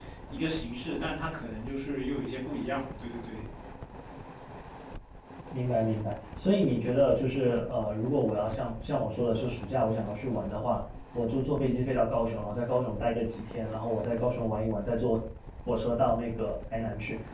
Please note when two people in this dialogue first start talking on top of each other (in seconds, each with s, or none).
none